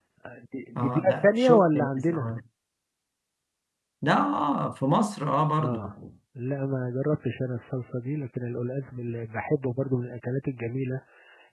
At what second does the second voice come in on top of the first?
0.8 s

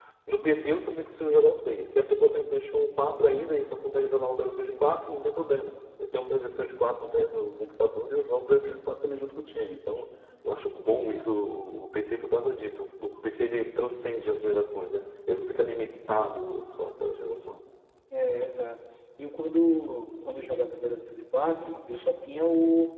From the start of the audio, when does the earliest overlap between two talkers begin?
none

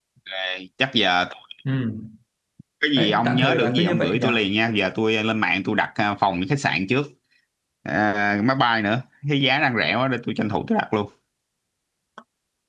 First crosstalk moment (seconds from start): 3.0 s

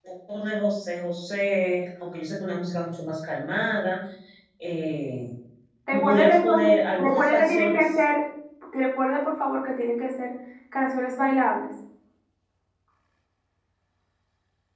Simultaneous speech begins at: 5.9 s

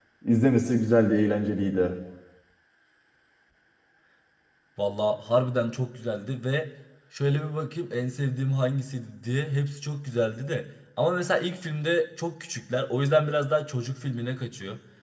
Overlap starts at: none

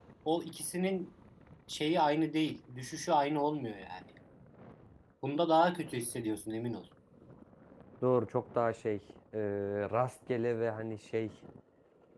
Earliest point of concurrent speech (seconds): none

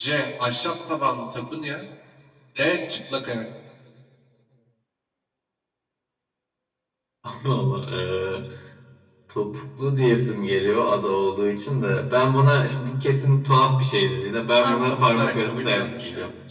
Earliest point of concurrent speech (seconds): 14.6 s

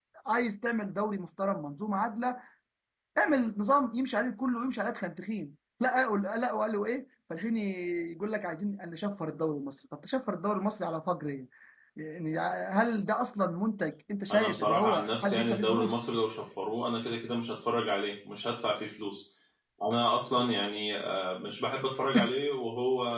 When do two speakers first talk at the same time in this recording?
14.3 s

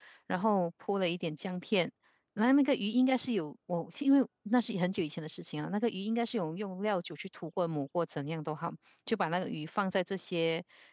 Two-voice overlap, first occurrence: none

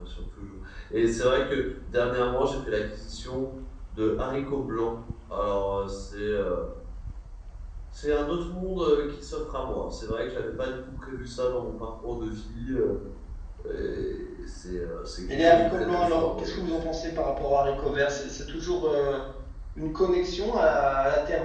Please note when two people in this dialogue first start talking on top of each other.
15.3 s

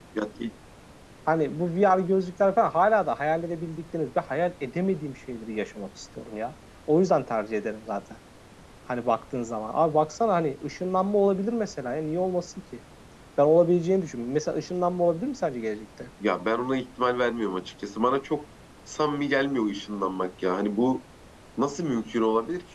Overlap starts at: none

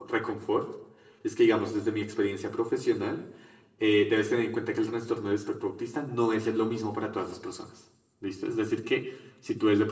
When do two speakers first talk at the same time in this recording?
none

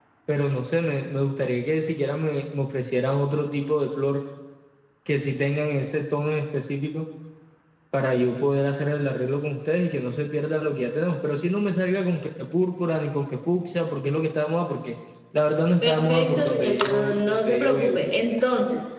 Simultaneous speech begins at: 15.8 s

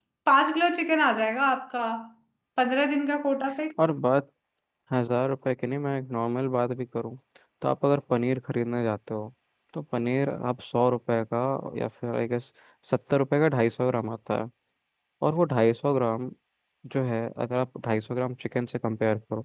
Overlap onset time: none

